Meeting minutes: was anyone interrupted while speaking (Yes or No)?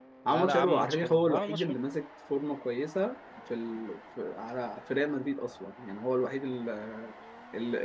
Yes